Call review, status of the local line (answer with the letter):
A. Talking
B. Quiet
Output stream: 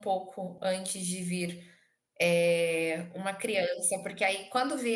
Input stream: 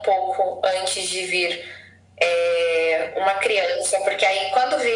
B